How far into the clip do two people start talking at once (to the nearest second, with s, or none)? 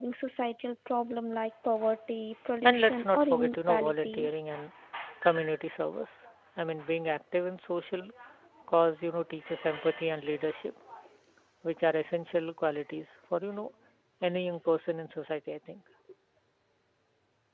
3 s